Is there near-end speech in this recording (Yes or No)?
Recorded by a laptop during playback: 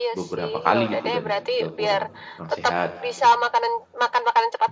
Yes